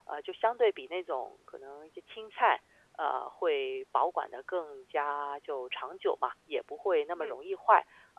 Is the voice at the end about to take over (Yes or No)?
No